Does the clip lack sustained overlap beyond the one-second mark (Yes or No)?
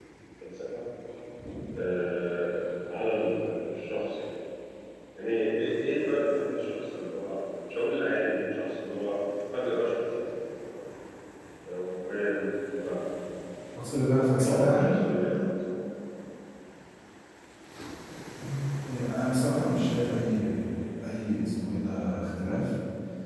Yes